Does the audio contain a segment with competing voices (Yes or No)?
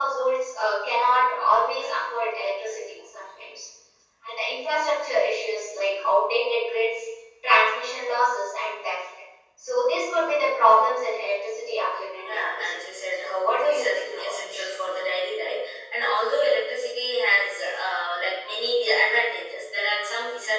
Yes